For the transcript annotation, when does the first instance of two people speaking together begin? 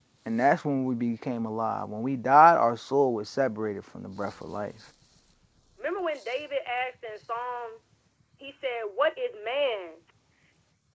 none

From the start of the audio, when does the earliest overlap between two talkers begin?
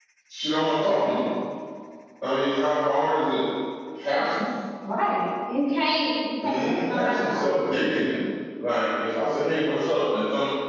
6 s

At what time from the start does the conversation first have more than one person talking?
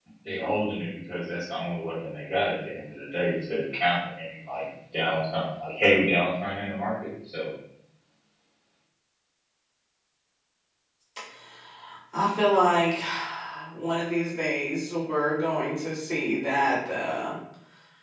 none

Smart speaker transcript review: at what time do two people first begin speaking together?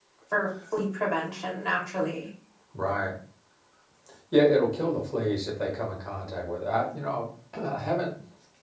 none

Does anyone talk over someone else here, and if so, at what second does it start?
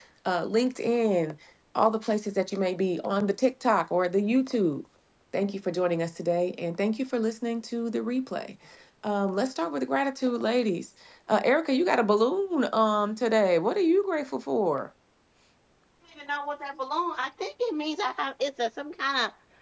none

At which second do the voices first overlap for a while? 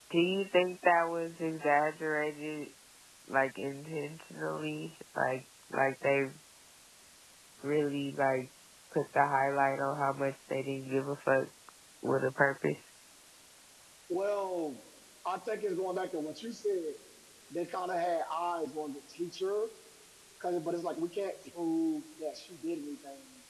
none

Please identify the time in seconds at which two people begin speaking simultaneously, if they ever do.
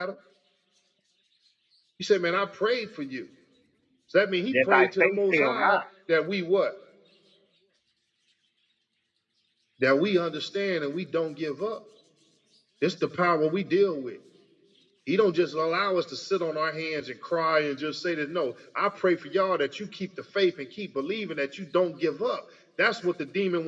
5 s

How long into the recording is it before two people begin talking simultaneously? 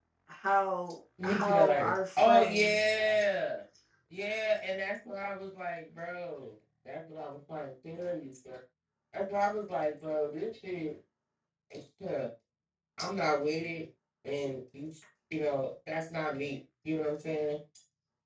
1 s

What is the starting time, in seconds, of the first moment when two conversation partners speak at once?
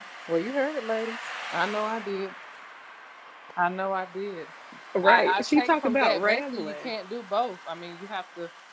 5 s

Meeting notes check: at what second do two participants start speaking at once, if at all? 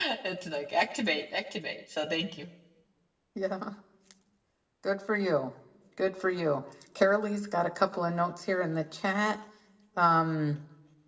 none

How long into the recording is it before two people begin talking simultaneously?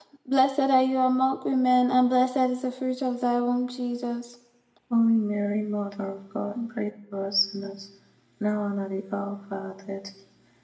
none

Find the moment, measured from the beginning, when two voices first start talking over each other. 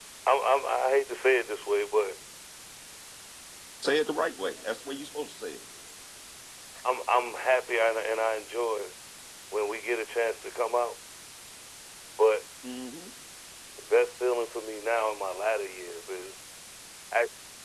none

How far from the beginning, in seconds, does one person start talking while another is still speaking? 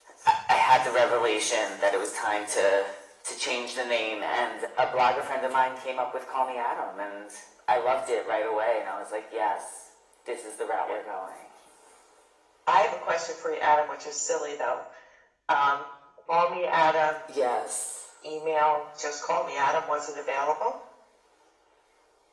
none

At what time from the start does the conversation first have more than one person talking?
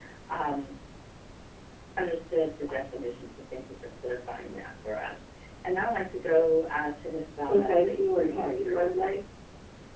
7 s

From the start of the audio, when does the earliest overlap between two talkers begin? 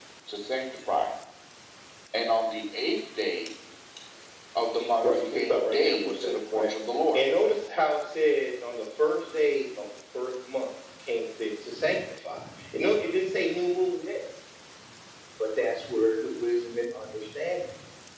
5 s

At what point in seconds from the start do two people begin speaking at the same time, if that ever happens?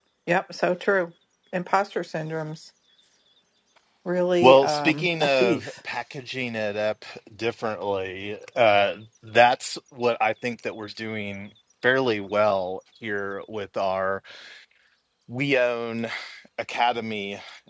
4 s

